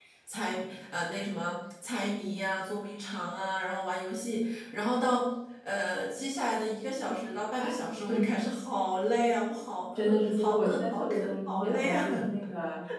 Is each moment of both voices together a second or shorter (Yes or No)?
No